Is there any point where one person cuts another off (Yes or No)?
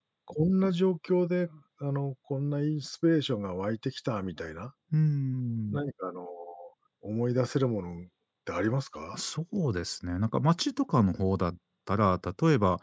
No